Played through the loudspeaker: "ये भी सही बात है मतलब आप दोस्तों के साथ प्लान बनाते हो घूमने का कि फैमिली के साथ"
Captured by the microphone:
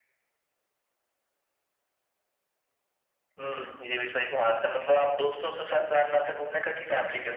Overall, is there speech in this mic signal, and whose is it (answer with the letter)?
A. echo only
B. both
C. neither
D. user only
B